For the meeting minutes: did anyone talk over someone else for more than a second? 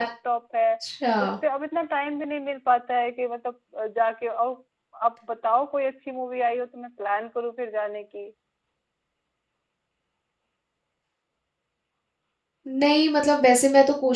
No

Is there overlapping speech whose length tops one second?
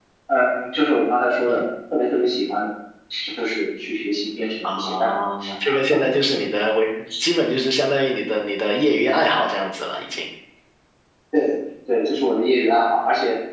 No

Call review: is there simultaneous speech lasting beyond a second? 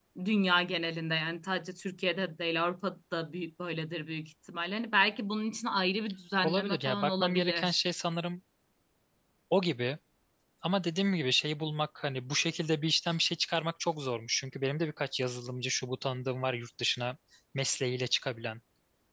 Yes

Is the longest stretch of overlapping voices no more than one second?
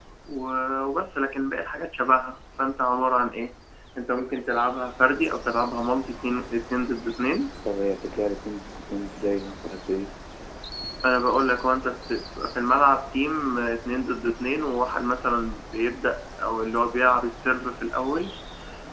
Yes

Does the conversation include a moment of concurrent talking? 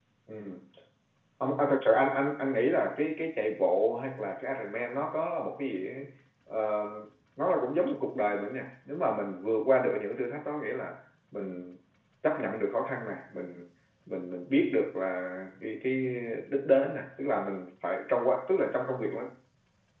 No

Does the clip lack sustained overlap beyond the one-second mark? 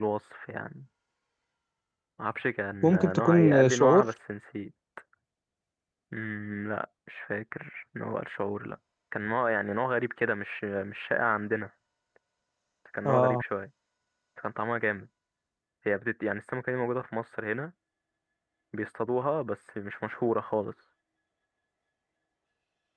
No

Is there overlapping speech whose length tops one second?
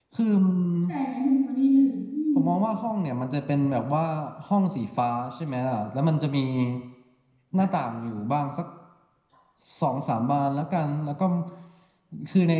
No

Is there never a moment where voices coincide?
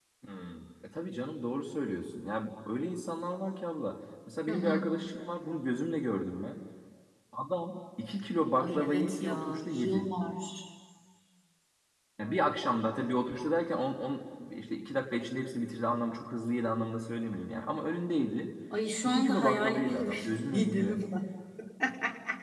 No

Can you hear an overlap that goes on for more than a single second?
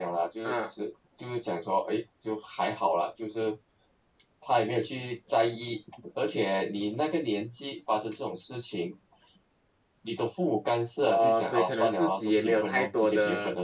Yes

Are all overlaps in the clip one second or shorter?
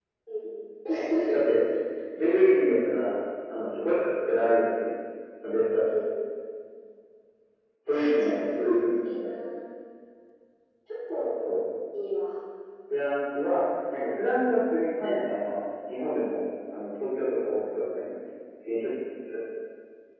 No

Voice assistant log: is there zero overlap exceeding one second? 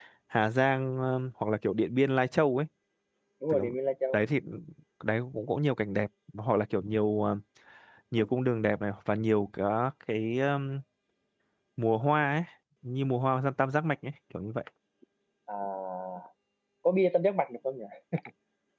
Yes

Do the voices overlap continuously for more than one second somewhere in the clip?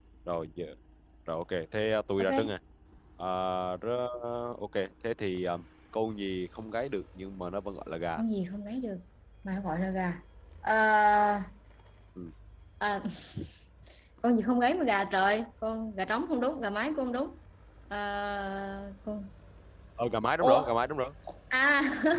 No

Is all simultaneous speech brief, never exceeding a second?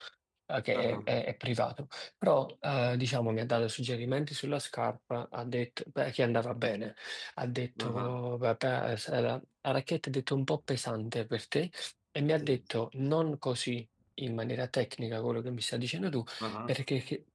Yes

